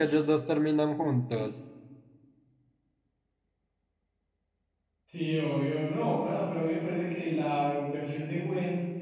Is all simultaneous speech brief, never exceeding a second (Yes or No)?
Yes